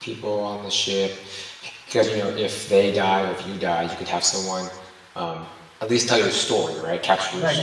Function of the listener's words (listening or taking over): taking over